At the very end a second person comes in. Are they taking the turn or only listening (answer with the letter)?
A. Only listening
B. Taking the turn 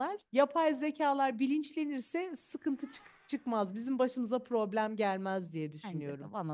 B